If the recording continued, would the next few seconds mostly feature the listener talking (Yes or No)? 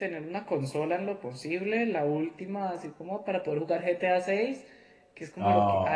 No